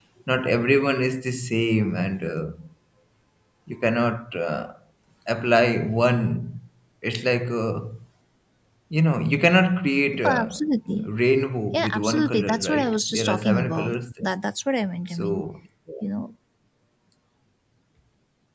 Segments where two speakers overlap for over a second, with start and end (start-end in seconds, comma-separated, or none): 11.7-14.0